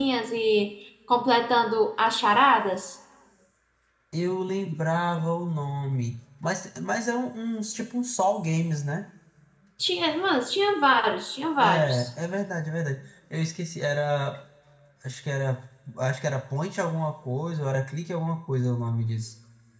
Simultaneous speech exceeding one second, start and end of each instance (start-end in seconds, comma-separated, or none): none